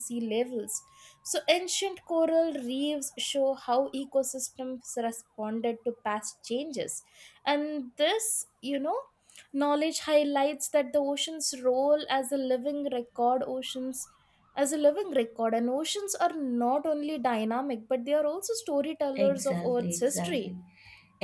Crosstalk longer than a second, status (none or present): present